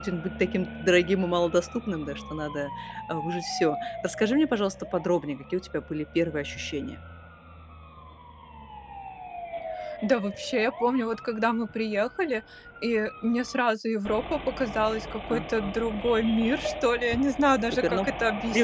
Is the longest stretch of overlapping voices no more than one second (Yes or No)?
Yes